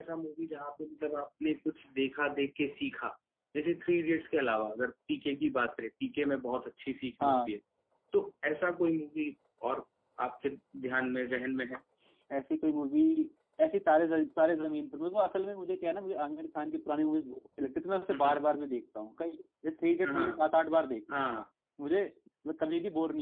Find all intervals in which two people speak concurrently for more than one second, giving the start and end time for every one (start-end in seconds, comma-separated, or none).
none